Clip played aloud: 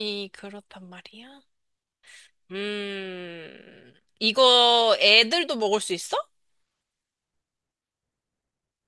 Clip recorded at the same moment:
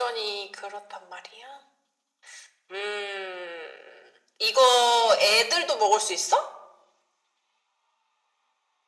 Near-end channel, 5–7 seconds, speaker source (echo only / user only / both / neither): echo only